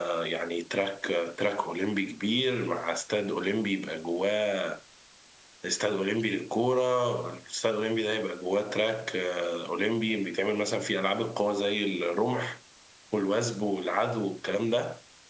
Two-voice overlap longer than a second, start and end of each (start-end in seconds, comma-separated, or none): none